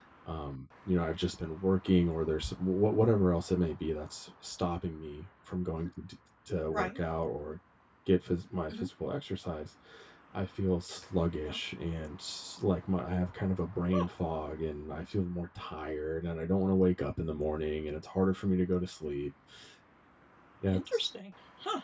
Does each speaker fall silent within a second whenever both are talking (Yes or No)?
Yes